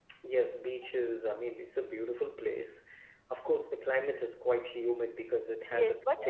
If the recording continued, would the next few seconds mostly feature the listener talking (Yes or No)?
Yes